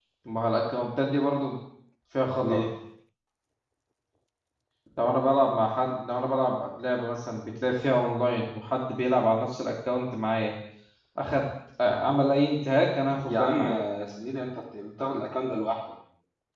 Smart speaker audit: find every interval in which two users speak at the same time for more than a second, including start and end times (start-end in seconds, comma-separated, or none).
none